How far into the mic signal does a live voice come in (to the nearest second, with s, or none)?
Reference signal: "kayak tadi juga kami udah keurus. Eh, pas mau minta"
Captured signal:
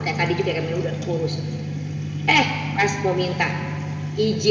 none